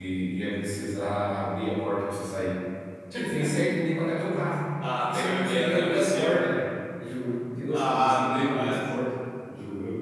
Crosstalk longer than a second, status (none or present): present